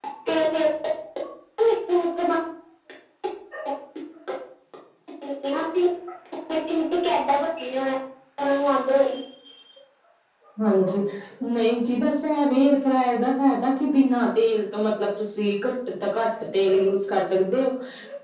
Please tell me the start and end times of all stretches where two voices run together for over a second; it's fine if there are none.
none

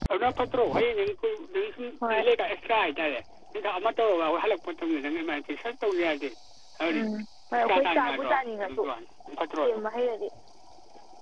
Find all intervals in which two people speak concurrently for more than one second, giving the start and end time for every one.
7.5-8.8

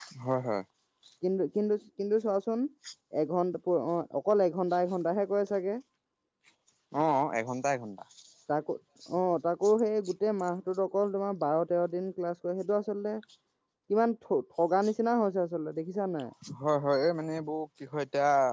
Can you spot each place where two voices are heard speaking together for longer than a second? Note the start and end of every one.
none

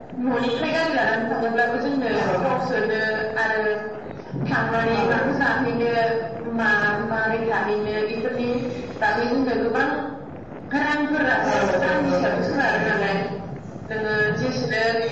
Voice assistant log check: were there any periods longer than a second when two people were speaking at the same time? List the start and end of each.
11.6-12.9

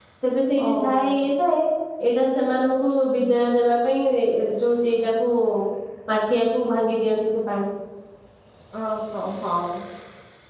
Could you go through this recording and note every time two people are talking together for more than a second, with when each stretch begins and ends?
none

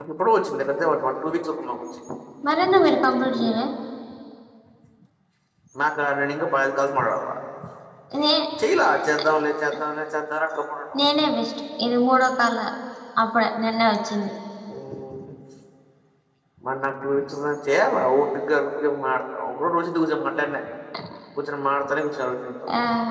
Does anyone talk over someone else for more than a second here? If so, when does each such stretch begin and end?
none

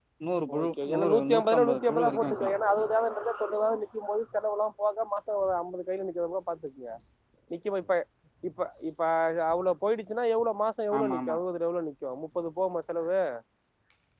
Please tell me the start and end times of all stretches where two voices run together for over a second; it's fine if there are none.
0.6-2.5

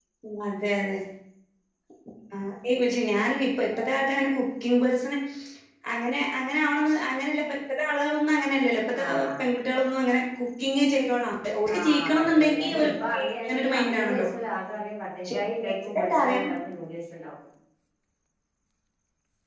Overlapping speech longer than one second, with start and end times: 11.8-14.3

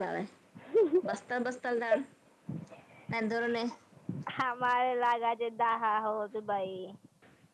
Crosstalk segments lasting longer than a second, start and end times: none

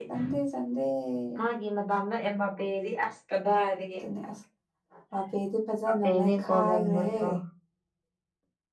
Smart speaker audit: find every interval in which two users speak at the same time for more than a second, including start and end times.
5.9-7.2

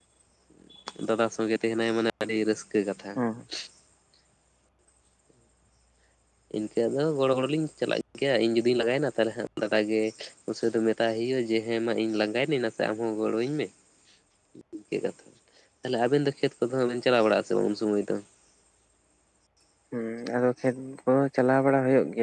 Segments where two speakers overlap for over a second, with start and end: none

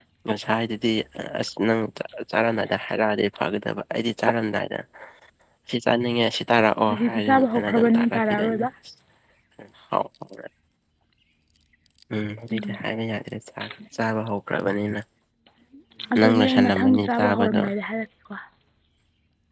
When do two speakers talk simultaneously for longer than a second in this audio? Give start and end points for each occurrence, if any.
6.9-8.7, 16.2-17.6

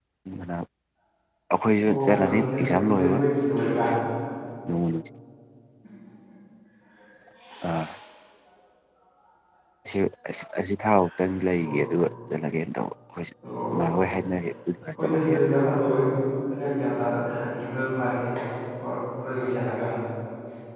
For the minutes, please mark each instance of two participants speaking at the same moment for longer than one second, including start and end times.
1.9-3.2

